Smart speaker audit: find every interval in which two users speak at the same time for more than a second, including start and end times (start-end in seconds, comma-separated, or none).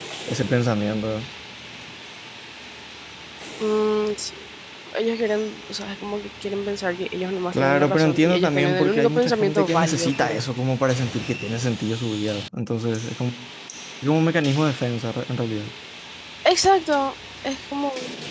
7.5-10.4